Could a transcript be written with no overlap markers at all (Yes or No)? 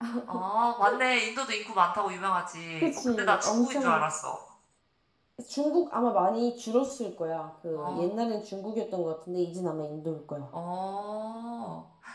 No